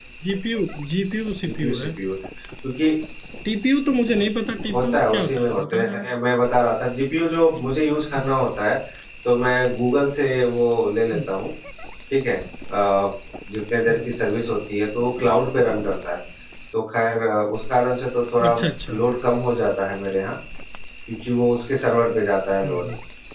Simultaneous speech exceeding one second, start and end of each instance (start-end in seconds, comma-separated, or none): 4.7-6.0